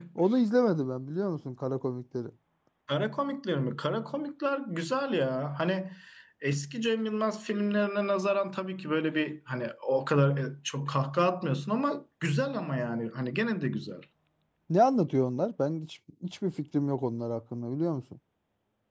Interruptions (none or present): none